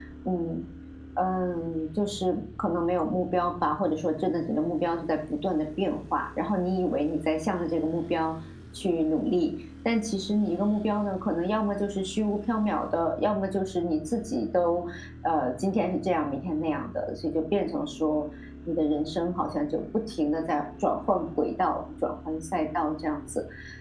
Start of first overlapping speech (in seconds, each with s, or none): none